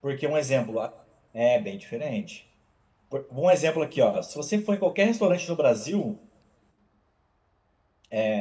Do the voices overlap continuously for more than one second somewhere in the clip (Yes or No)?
No